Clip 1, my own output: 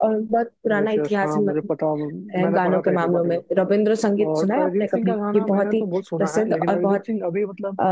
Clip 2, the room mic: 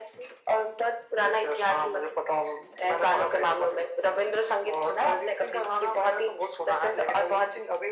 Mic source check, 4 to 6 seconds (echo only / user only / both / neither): echo only